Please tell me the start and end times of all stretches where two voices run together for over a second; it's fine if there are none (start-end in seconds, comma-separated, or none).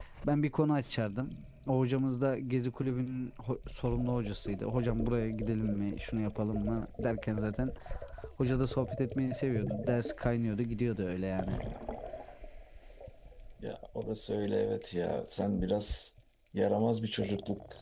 none